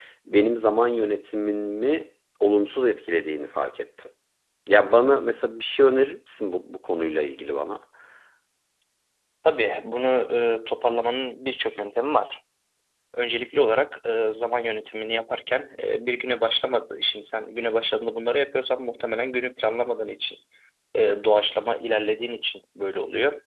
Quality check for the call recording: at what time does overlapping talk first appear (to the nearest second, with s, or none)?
none